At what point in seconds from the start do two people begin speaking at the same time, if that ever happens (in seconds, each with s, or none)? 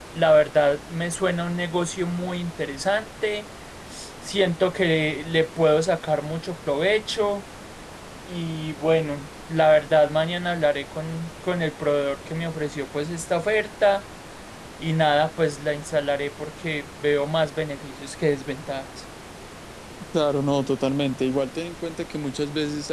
none